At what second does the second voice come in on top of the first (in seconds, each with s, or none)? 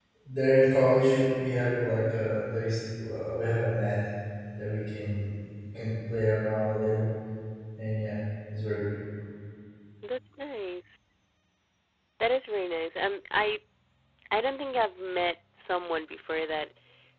none